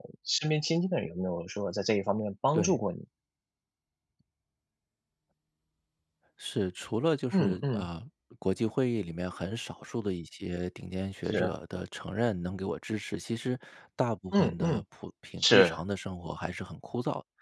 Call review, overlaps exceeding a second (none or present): none